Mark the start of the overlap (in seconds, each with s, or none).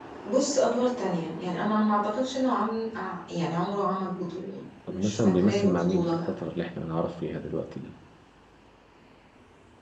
4.9 s